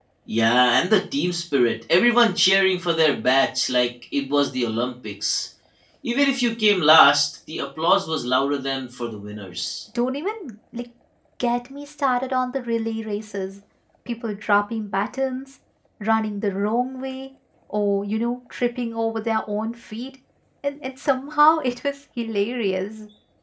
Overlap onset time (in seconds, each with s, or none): none